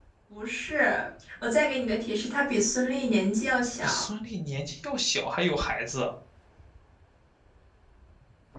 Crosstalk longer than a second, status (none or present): none